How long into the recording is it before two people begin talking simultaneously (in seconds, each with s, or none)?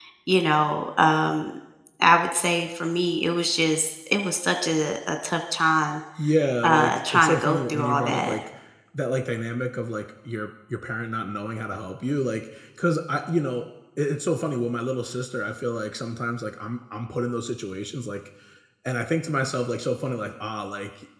6.6 s